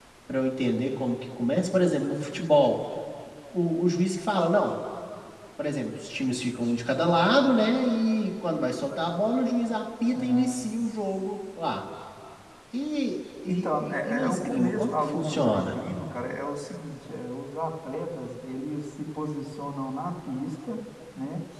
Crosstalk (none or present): present